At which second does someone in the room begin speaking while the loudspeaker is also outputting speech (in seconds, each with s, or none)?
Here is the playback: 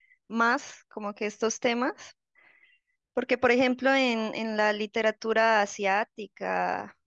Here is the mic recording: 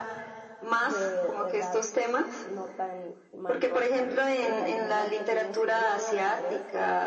0.8 s